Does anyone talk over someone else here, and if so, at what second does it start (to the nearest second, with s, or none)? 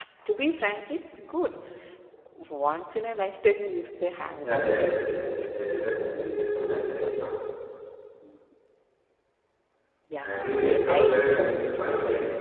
4 s